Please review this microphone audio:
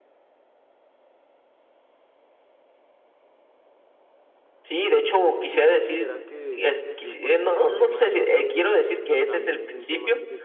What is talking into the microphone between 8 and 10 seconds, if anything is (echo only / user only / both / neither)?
both